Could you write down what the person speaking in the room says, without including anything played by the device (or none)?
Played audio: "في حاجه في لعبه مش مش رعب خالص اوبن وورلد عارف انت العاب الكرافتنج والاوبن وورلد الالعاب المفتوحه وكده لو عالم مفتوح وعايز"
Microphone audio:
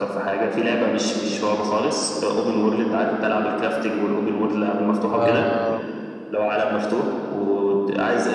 آه...